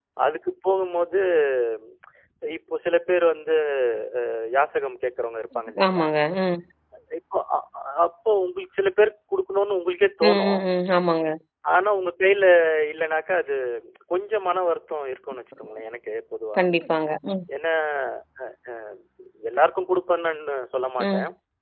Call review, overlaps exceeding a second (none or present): none